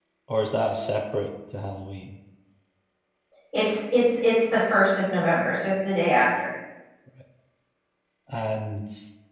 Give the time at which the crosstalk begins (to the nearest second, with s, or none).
none